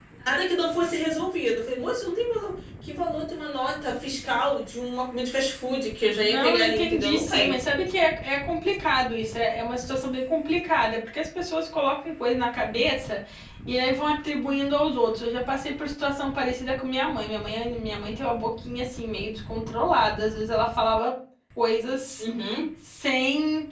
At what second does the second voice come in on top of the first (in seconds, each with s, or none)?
6.2 s